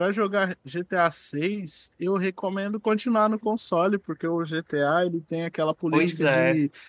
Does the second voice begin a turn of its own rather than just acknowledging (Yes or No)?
No